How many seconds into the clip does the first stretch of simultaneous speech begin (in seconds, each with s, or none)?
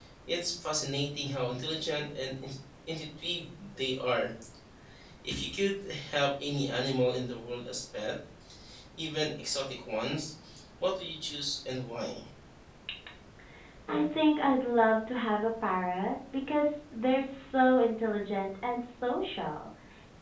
none